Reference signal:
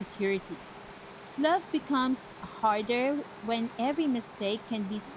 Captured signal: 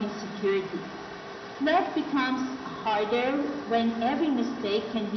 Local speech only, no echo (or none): none